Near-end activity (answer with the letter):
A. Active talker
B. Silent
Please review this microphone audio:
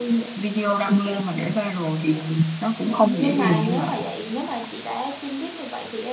A